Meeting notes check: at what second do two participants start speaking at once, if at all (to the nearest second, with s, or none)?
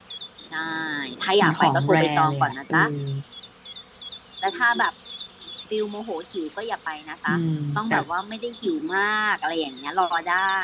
1 s